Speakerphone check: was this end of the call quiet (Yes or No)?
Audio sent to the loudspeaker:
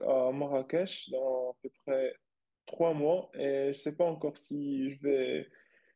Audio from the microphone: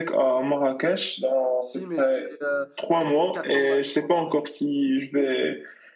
No